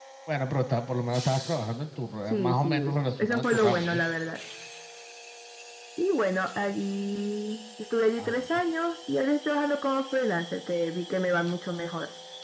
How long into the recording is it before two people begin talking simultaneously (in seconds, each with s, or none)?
2.2 s